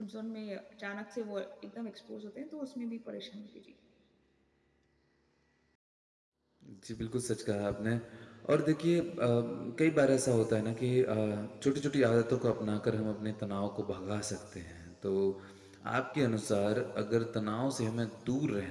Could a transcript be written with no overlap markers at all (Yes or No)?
Yes